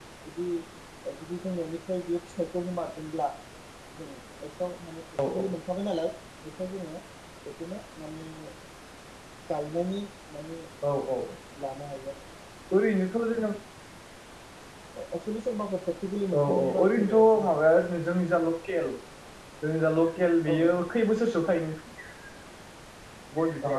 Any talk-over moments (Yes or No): Yes